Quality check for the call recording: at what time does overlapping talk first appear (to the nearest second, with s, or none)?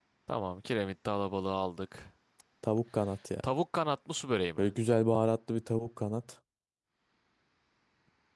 none